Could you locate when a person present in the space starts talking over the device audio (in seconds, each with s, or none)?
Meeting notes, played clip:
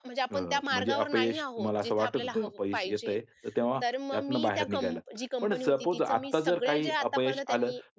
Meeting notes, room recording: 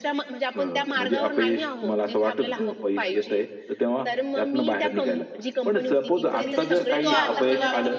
6.2 s